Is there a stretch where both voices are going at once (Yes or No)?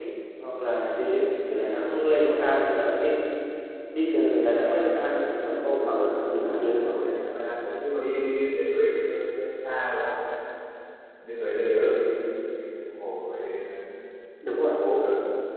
Yes